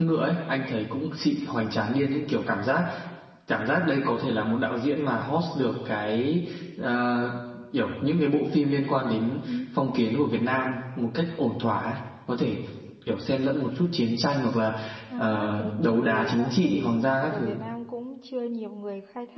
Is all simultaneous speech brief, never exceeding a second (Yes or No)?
No